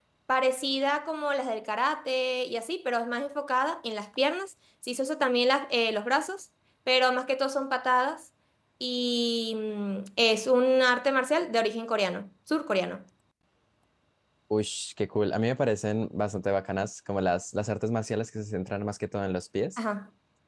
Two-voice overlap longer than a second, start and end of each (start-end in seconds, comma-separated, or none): none